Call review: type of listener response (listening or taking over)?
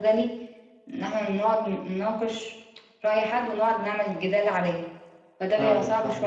taking over